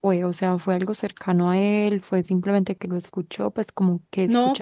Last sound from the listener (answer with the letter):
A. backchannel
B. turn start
B